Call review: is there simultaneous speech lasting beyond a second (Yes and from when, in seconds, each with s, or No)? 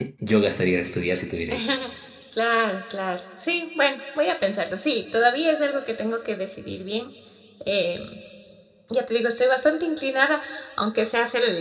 No